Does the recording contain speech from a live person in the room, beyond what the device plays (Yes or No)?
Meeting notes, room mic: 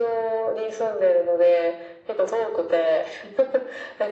No